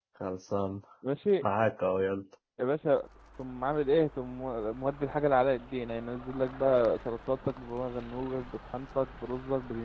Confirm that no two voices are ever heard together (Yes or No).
Yes